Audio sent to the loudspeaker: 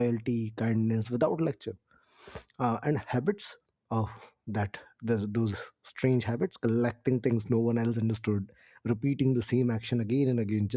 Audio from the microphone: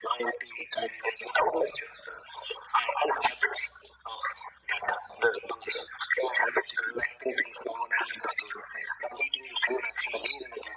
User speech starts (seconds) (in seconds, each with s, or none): none